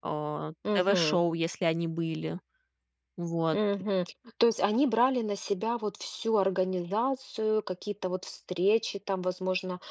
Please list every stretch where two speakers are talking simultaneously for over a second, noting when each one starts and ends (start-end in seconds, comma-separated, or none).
none